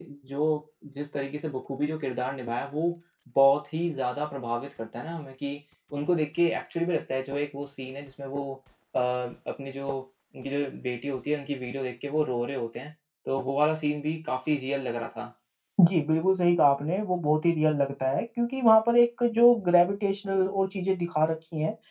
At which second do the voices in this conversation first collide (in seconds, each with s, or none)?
none